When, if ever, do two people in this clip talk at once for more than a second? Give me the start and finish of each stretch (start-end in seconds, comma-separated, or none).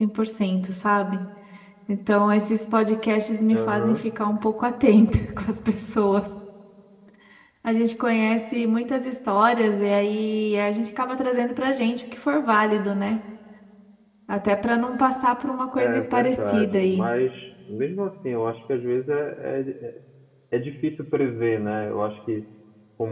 15.8-17.0